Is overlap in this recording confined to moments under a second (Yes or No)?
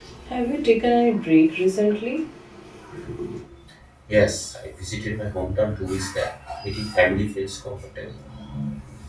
Yes